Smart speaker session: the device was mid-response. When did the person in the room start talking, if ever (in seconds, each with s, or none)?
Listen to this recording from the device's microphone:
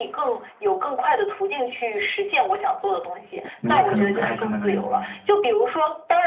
3.6 s